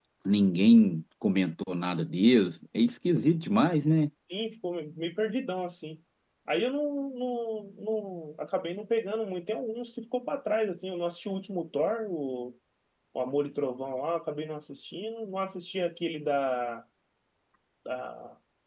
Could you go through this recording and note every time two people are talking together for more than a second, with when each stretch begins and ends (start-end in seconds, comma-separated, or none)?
none